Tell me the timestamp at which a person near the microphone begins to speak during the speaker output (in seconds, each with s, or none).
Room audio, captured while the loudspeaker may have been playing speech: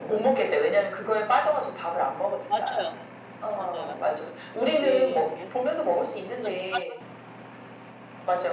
2.5 s